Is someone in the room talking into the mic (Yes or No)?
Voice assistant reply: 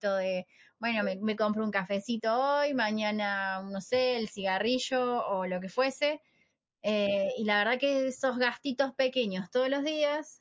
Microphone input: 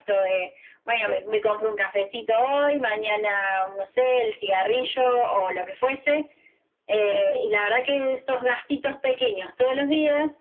Yes